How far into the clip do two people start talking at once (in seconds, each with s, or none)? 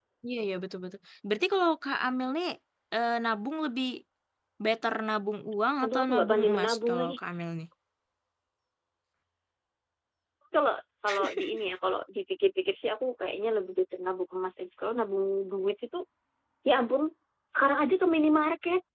5.8 s